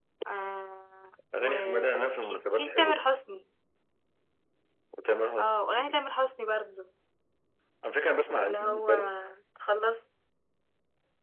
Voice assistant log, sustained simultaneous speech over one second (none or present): present